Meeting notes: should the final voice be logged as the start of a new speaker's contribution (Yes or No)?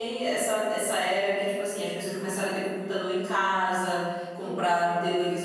No